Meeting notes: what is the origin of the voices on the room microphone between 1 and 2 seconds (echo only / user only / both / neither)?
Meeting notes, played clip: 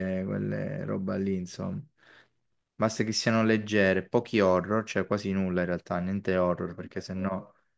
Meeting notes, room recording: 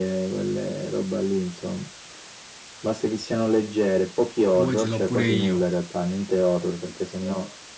echo only